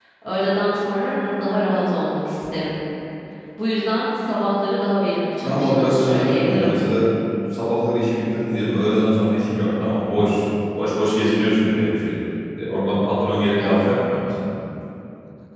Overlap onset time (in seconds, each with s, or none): 5.4 s